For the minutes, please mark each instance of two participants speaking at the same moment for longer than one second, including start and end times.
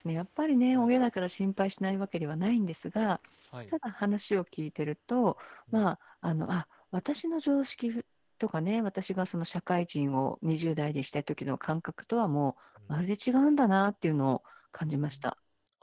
none

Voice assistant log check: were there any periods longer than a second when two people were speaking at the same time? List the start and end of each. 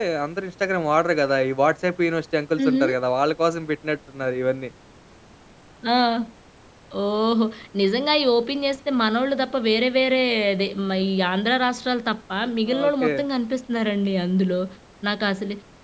none

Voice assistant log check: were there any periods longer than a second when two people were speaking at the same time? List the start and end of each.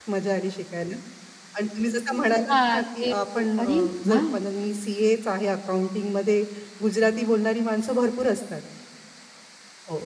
2.5-4.2

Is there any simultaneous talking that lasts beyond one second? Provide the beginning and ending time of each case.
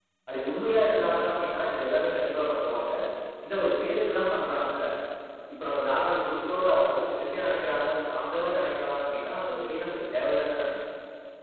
none

